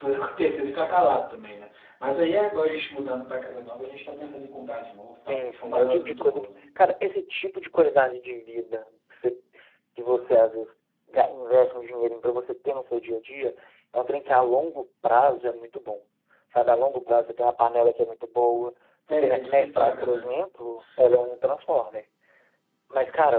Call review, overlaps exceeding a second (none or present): present